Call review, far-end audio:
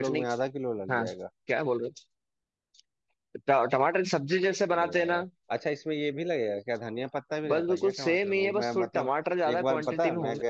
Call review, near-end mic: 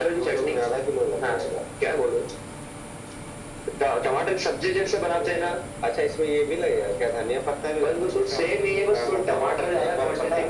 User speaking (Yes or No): No